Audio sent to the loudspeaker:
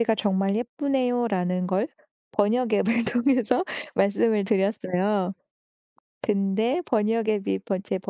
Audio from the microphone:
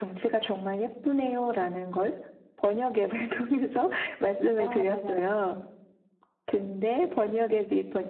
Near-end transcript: 아 맞아요.

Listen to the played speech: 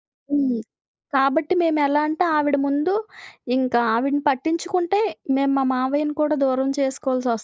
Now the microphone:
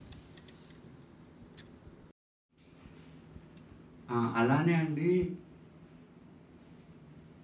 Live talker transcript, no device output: ఆ! అలానే అండి

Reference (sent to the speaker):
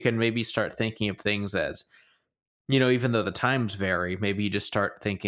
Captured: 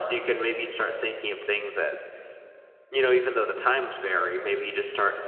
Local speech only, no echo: none

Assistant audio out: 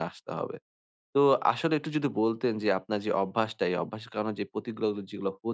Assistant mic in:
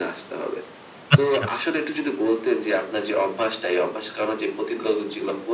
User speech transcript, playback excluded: আচ্ছা।

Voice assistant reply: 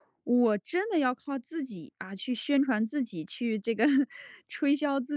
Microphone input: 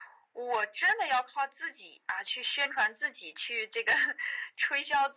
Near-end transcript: none

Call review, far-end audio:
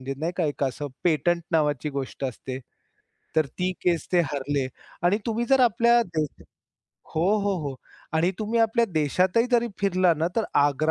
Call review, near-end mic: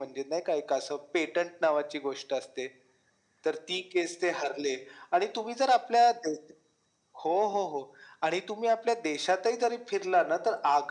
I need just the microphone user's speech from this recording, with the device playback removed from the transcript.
none

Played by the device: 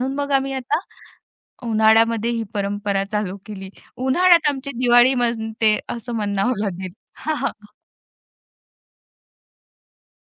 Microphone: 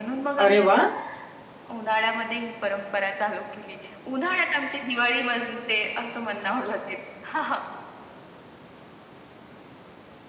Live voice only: अरे वाह!

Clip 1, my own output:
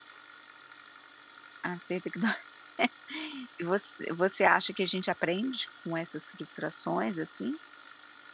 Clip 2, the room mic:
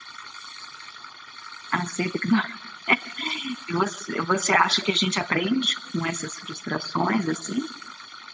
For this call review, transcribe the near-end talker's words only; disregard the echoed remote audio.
none

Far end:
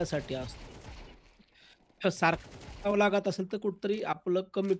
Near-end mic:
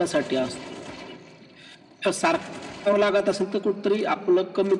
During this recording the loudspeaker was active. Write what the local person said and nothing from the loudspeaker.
none

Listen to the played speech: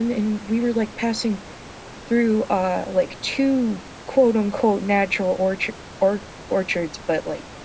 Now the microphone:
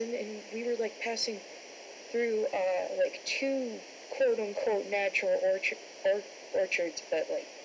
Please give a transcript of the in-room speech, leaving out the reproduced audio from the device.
none

